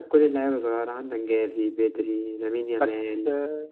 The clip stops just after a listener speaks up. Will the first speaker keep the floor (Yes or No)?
Yes